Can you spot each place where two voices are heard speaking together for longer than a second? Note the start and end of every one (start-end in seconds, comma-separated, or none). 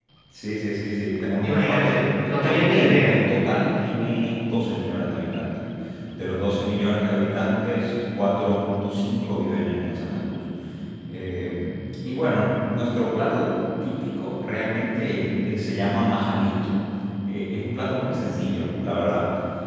1.4-3.1